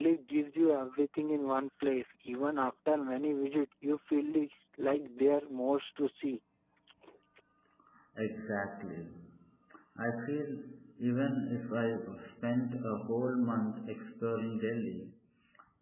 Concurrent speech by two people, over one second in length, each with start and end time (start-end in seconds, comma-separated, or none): none